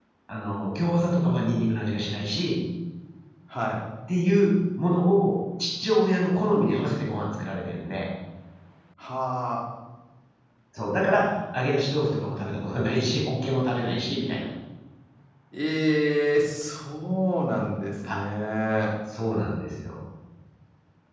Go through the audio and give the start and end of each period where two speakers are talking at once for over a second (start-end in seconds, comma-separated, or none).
none